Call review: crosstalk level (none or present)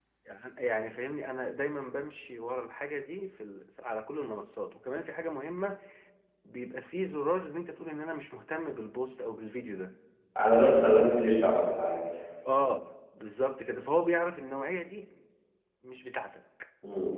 none